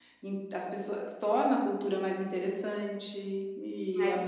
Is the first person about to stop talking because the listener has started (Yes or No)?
No